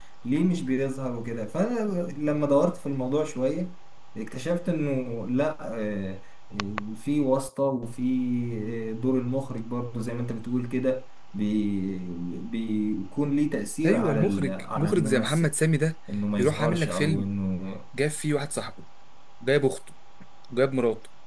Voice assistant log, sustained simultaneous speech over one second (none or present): present